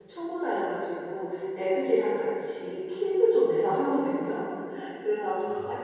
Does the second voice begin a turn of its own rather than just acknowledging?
No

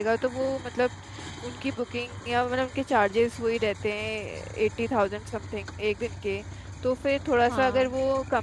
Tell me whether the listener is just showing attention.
Yes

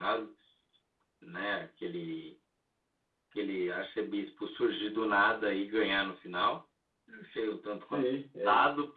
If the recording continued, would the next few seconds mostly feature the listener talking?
Yes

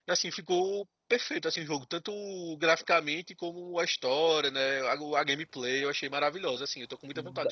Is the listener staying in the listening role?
No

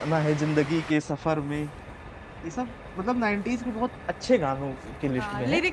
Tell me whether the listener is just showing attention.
No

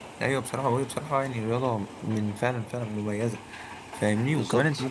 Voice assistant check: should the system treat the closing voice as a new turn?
No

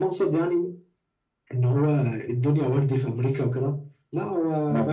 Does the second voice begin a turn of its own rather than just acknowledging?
No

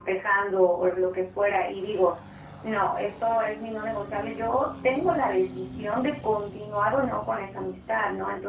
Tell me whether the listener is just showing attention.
Yes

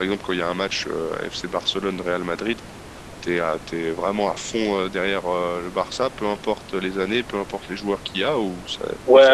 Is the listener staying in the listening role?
No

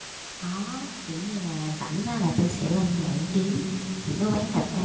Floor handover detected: No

